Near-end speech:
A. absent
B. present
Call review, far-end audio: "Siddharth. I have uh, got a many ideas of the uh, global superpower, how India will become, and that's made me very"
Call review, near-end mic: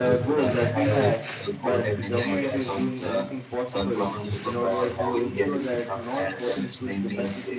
B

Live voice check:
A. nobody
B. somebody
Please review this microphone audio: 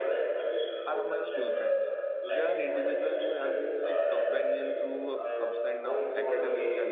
B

